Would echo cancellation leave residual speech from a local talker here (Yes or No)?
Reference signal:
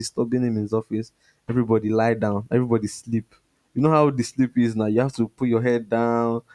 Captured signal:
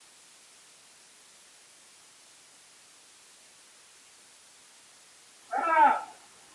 Yes